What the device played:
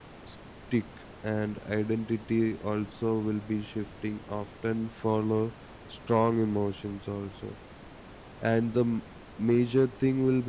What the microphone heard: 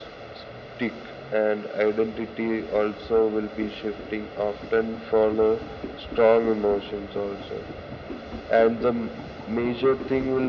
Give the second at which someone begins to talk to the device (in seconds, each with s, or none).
none